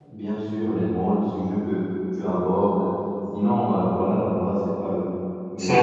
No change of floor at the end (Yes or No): No